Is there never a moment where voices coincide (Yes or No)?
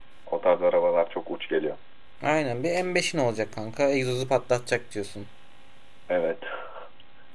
Yes